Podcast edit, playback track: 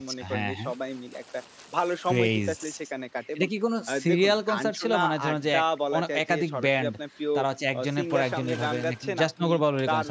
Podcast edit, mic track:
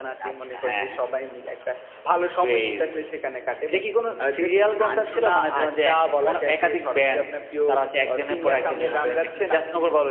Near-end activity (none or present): none